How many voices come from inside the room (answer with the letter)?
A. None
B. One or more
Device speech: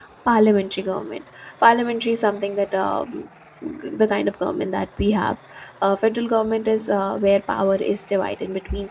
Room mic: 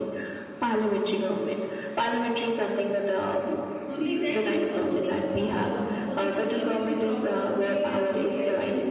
B